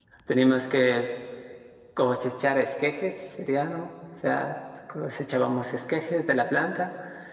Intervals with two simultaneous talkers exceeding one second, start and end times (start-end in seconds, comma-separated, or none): none